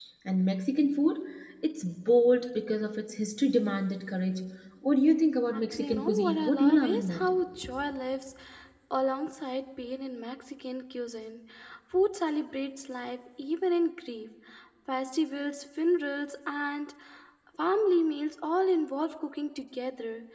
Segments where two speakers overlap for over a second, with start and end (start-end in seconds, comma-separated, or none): 5.5-7.2